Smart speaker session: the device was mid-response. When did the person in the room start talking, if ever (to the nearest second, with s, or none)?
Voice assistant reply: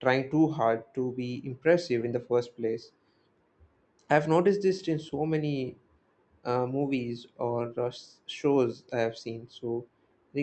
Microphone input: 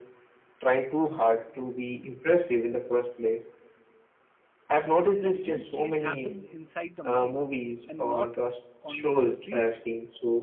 5 s